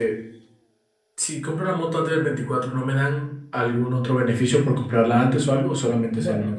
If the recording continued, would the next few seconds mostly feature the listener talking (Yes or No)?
Yes